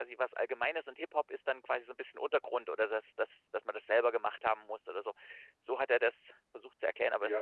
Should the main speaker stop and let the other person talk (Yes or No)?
Yes